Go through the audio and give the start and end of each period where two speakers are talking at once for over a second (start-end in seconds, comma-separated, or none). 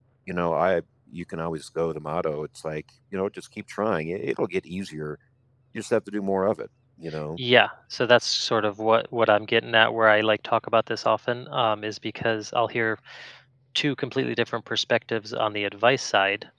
none